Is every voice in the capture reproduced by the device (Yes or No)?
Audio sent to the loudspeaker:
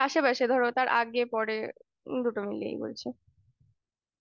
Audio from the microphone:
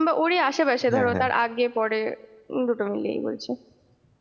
No